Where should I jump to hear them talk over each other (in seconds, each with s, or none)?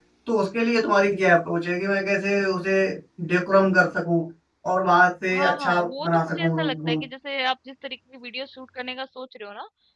5.4 s